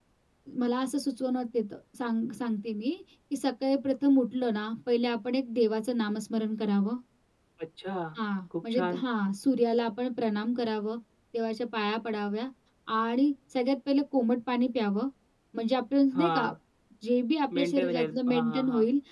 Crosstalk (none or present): present